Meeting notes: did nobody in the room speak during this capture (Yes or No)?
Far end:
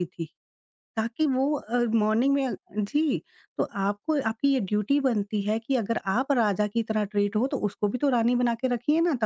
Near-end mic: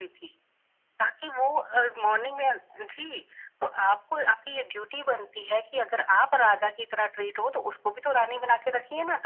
Yes